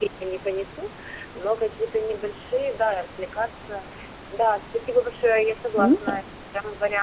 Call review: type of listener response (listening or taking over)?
listening